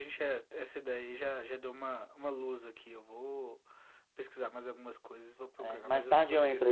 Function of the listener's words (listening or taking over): taking over